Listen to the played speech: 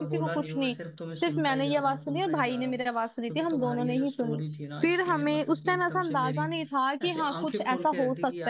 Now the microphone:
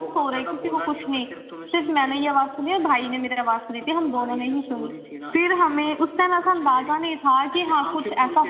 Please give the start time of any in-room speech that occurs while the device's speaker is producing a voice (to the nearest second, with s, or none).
none